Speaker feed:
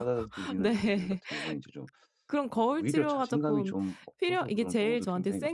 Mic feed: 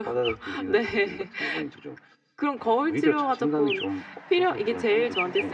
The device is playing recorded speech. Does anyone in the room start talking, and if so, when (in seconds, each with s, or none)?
none